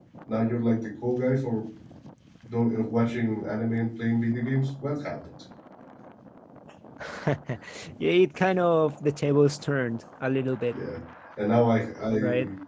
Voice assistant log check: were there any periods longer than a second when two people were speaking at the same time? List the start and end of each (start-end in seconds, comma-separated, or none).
none